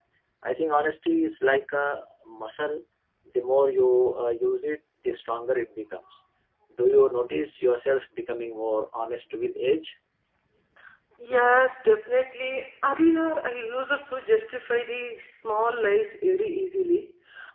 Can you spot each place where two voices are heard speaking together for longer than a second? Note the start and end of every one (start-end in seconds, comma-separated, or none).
none